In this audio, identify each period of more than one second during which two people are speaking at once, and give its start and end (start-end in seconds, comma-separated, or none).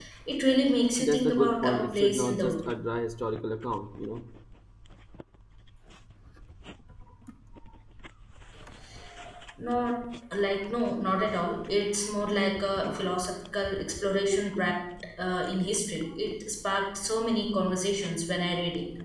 1.0-2.6